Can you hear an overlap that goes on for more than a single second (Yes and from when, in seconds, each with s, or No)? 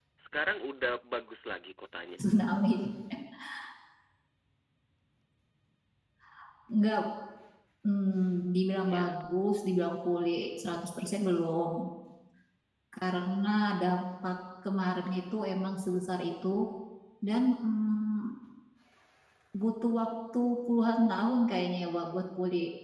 No